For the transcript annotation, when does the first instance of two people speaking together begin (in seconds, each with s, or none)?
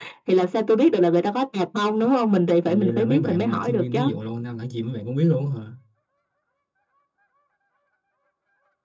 2.7 s